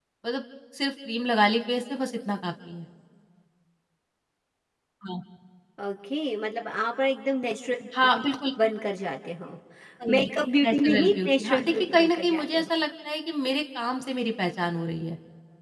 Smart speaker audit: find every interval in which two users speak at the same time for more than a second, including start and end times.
10.6-12.7

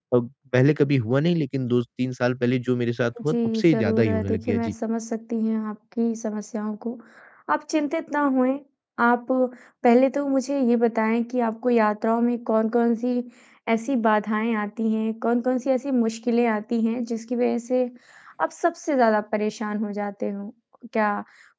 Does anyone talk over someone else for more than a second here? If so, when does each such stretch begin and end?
3.3-4.7

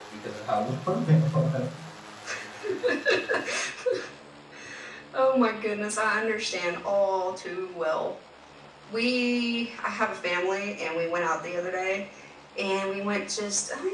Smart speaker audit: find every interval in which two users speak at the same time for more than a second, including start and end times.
none

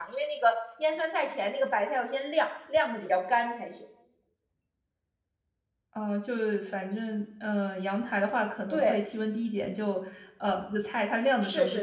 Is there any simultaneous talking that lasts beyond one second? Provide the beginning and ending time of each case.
none

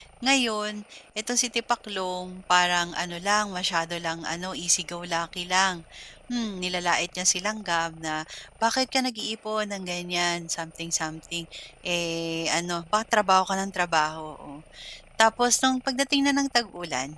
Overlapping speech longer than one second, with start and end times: none

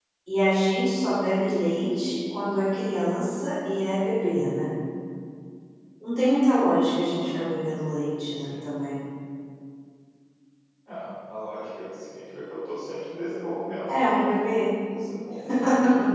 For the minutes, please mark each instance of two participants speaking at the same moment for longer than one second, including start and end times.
none

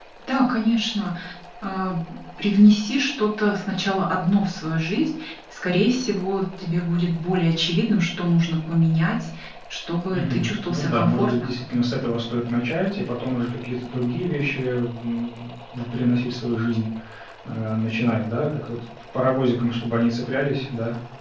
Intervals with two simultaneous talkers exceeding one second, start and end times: 10.1-11.5

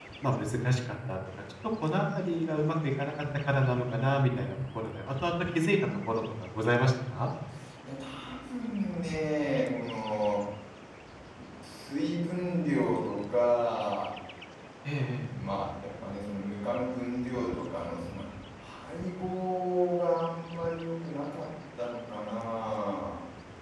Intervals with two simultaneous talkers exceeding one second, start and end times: none

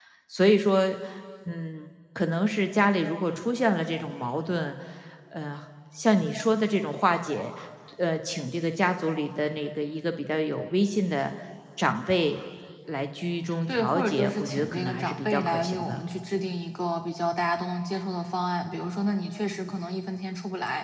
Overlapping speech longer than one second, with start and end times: 13.7-16.0

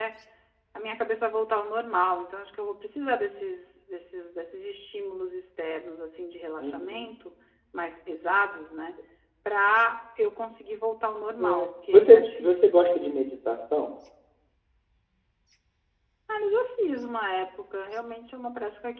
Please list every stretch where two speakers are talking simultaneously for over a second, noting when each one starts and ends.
11.4-13.1

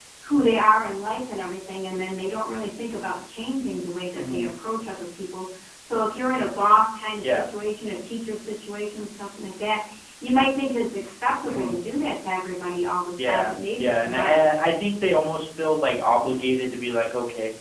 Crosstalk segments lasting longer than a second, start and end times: 13.2-14.5

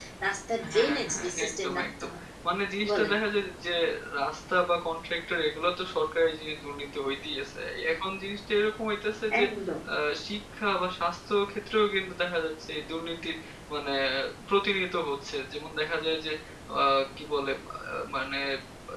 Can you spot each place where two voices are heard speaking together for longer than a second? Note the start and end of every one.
0.7-2.1

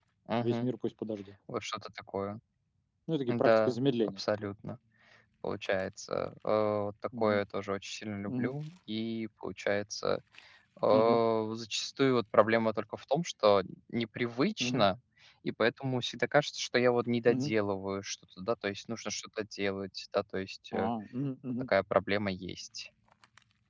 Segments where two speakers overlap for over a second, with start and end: 3.3-4.5

